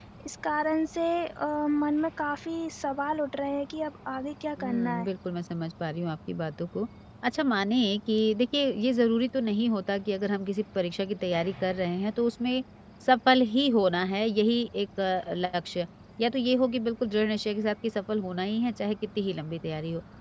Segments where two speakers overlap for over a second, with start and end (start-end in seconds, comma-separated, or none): none